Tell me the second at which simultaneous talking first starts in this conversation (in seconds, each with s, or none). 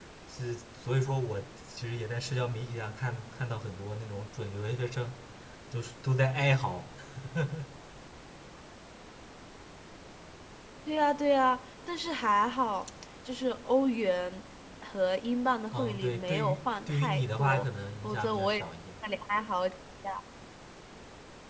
15.7 s